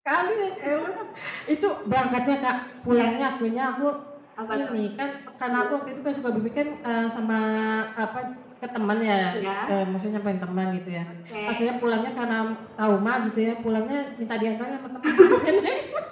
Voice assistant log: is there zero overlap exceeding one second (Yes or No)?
Yes